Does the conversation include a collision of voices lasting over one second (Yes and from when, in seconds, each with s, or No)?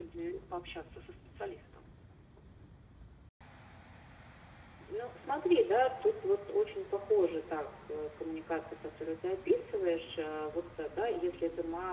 No